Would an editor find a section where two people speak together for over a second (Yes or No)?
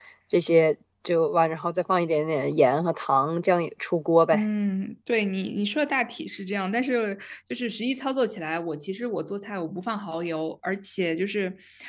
No